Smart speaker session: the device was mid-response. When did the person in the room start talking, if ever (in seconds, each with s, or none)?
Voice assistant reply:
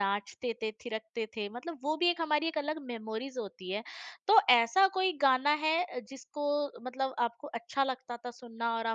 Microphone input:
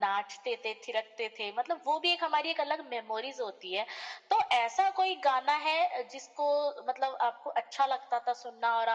none